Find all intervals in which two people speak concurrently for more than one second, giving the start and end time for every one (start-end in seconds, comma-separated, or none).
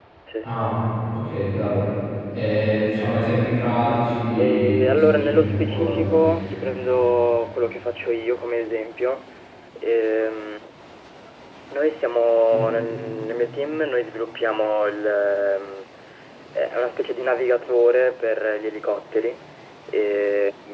4.4-6.0